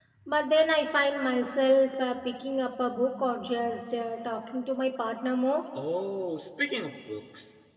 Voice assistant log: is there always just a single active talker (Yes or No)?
Yes